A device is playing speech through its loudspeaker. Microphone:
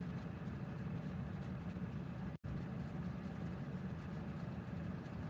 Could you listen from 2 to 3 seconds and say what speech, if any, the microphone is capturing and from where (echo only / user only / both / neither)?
neither